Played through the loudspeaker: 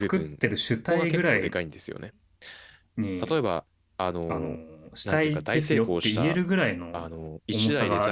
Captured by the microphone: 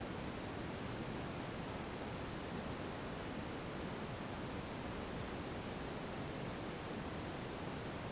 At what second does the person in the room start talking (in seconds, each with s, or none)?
none